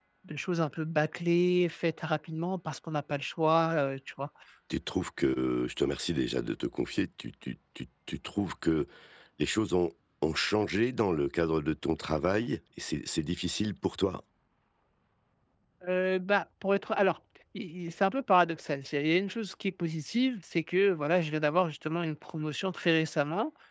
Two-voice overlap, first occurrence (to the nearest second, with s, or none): none